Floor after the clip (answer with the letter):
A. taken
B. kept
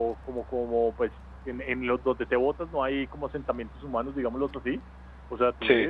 B